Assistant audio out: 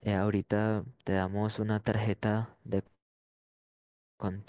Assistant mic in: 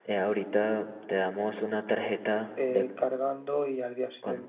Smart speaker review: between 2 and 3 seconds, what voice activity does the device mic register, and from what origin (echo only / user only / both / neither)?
both